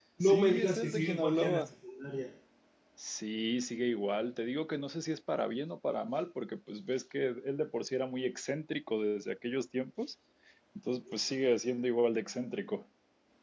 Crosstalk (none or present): present